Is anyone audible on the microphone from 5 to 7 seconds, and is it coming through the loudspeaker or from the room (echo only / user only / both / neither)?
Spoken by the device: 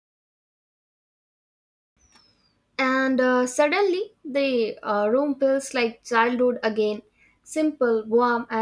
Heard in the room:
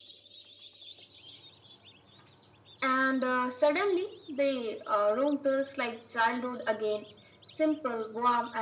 echo only